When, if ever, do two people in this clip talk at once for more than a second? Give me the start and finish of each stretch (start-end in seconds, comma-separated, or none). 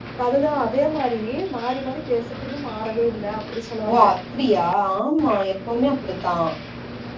none